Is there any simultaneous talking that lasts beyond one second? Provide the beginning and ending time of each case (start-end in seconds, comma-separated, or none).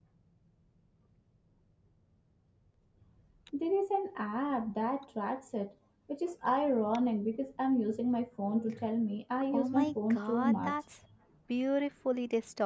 9.5-10.7